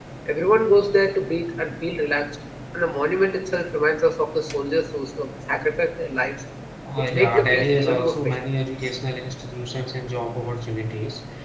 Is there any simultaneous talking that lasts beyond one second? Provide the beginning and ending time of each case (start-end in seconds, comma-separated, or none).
7.0-8.5